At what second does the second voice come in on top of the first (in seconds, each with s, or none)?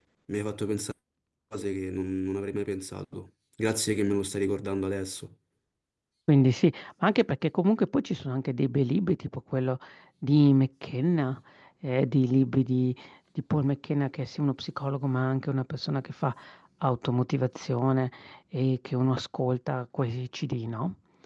none